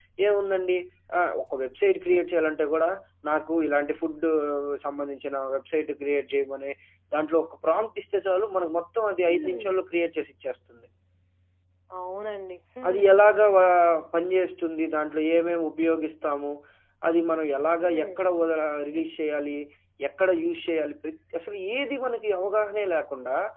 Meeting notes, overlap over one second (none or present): none